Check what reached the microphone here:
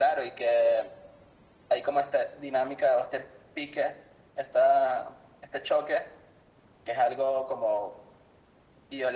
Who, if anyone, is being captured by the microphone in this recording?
echo only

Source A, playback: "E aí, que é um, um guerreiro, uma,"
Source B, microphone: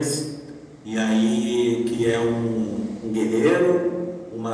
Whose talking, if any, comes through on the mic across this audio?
echo only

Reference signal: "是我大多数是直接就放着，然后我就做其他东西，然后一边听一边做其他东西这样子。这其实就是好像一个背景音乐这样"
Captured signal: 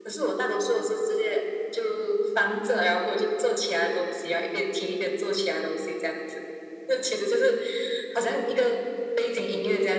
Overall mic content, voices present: echo only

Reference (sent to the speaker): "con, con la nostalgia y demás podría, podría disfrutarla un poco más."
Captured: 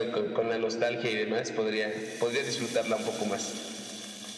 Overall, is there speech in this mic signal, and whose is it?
echo only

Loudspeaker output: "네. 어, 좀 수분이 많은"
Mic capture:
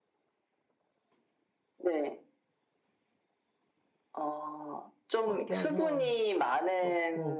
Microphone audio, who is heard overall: both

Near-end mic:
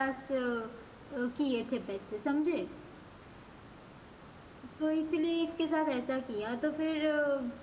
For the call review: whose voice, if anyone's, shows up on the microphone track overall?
user only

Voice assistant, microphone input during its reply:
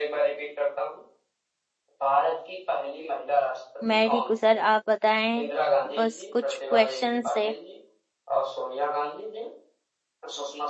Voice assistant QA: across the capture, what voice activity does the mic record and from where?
both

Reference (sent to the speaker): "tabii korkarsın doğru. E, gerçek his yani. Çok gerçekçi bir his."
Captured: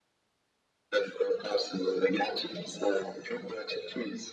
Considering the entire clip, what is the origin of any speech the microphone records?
echo only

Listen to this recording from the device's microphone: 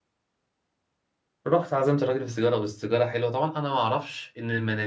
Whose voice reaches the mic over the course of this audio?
user only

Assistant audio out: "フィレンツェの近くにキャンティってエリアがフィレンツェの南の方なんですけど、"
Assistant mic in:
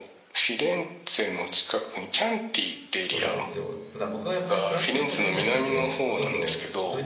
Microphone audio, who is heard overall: both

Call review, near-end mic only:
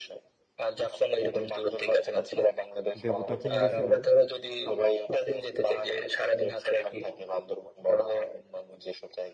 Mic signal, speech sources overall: both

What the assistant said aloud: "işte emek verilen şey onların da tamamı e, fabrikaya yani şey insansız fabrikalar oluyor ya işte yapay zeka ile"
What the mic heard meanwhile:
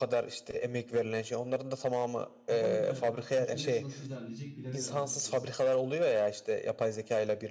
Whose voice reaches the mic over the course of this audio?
both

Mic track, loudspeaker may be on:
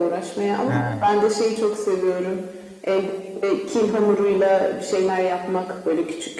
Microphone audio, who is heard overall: both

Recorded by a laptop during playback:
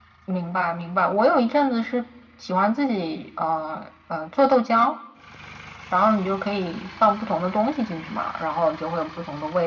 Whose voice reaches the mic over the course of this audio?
echo only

